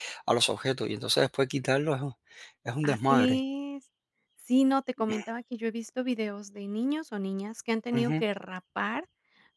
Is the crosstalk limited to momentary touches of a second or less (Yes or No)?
Yes